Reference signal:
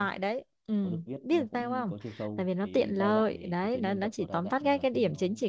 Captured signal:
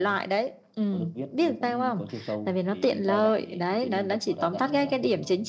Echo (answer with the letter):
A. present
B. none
A